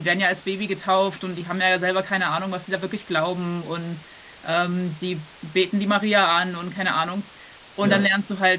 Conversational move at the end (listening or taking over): listening